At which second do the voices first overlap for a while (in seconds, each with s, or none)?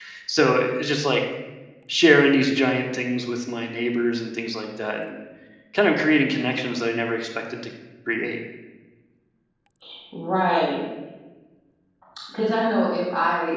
none